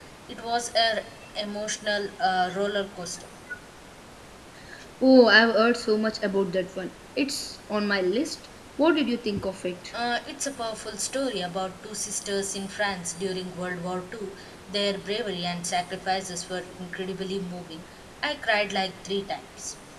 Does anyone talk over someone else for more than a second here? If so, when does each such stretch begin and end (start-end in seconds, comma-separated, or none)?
none